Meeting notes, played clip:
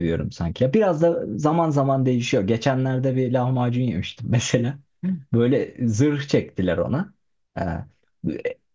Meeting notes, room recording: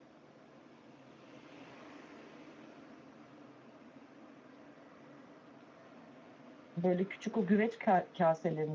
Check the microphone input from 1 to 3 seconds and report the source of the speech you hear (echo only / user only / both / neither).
neither